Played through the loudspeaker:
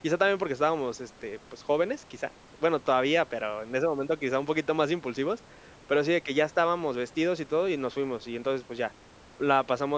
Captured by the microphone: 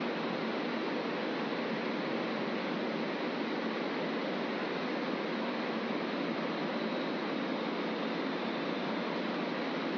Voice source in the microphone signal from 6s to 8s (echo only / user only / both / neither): neither